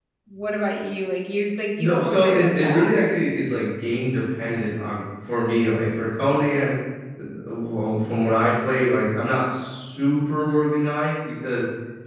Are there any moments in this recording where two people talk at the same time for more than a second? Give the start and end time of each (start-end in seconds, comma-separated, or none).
1.8-3.0